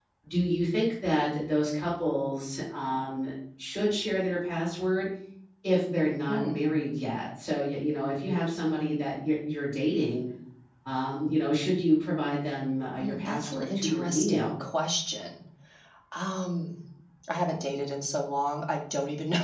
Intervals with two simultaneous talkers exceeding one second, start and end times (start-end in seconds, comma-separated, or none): 13.0-14.6